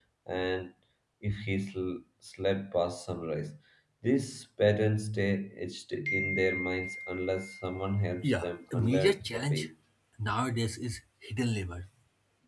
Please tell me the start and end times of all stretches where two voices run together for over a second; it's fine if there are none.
8.2-9.7

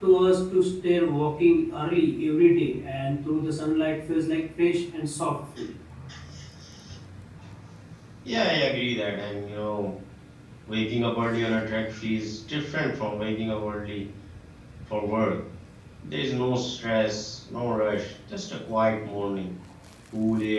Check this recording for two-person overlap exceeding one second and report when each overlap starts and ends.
none

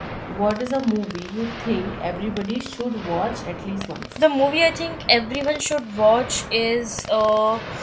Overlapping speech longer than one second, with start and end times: none

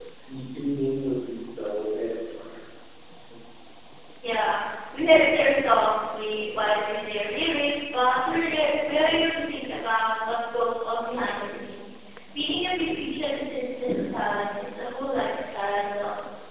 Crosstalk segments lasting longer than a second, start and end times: none

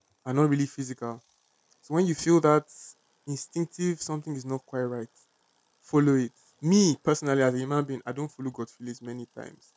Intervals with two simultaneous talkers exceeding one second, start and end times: none

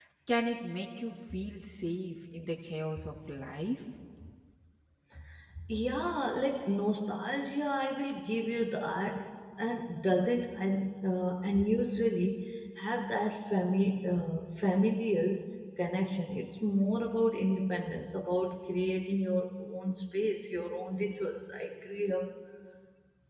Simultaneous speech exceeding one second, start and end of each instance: none

